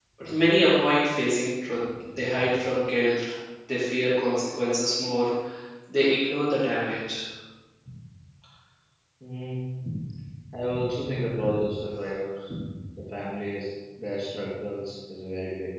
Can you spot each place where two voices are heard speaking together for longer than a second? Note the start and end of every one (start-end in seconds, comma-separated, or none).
none